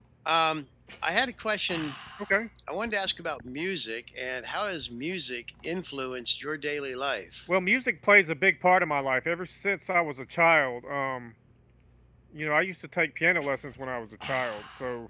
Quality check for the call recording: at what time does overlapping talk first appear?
none

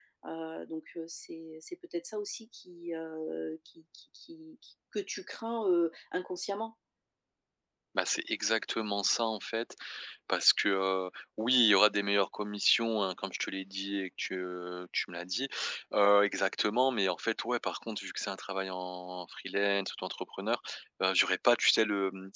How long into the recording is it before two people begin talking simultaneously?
none

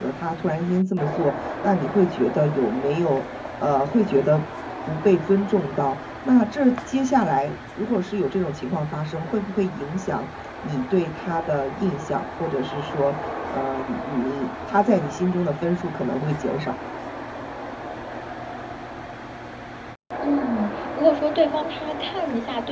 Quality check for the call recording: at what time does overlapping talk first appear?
none

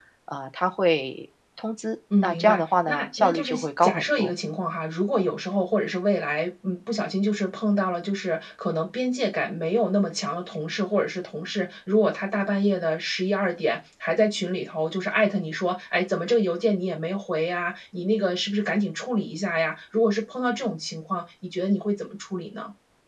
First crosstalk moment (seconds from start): 2.1 s

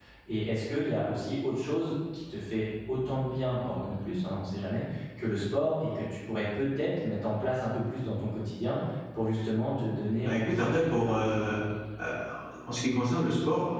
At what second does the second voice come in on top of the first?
10.2 s

